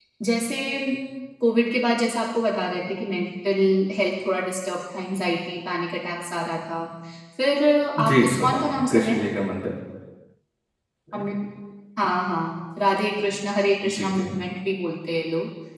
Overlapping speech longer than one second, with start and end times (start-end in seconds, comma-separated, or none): 8.0-9.2